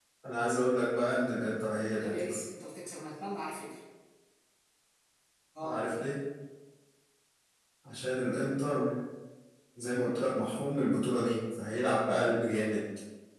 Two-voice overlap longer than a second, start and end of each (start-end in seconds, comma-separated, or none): none